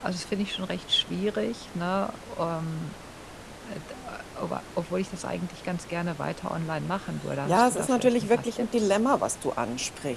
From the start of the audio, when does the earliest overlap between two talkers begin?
7.5 s

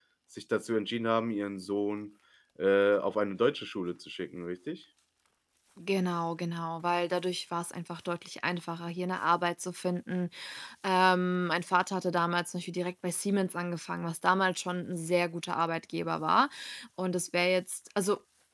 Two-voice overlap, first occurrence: none

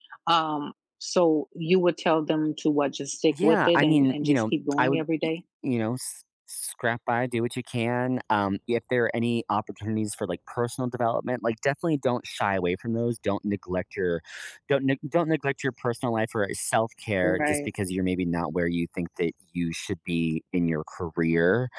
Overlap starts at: 3.4 s

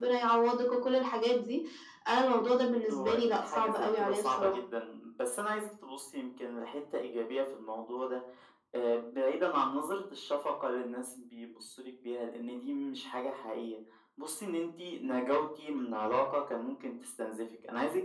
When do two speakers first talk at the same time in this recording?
2.9 s

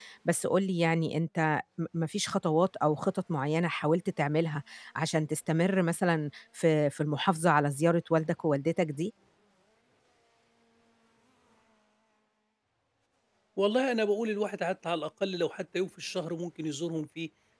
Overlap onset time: none

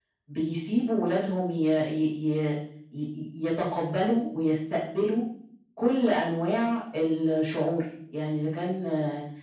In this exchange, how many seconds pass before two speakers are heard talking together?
none

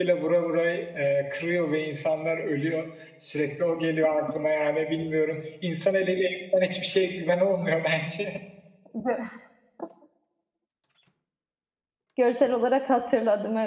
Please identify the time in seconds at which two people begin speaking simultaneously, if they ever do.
none

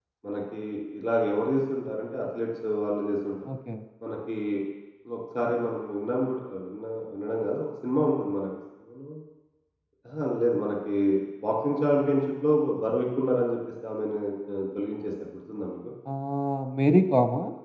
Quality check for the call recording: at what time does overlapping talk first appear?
none

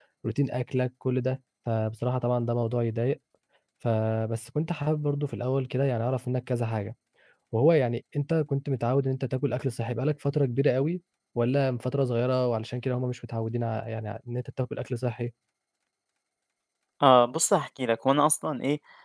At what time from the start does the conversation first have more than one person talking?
none

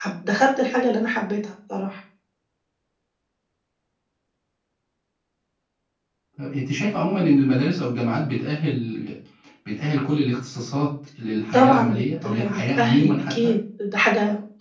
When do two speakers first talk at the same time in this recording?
11.5 s

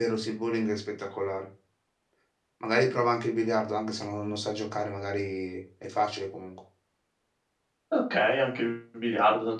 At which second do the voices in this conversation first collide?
none

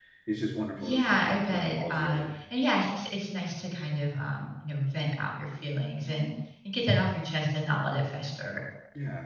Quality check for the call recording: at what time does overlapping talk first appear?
0.8 s

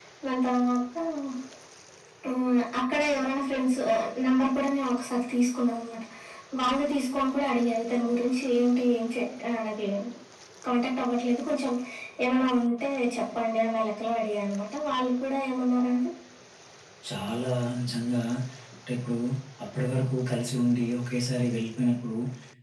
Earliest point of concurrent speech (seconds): none

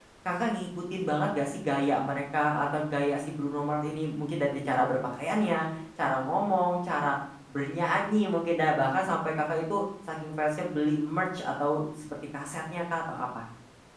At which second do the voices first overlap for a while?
none

